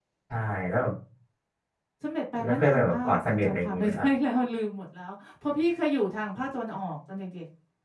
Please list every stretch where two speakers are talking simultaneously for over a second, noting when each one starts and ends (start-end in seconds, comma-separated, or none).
2.4-4.1